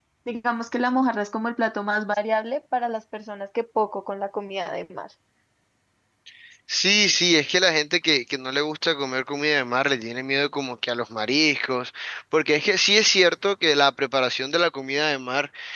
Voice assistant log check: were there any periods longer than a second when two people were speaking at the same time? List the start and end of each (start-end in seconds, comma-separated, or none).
none